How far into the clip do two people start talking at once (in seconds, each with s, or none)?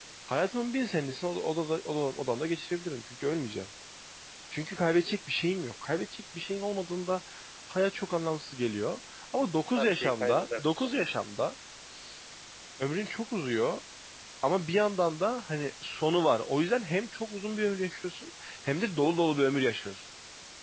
9.8 s